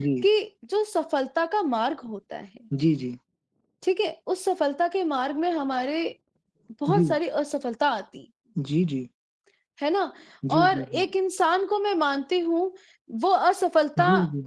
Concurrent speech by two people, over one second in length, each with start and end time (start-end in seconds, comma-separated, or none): none